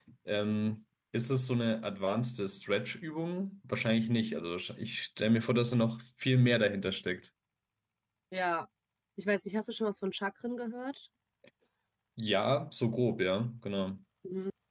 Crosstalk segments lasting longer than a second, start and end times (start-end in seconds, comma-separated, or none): none